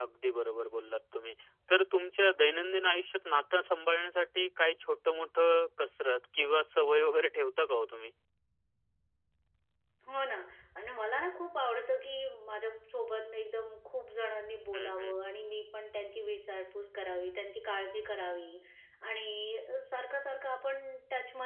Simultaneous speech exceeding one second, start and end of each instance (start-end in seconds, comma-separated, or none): none